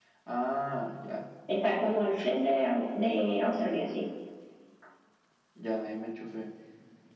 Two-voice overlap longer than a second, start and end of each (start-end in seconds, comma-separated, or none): none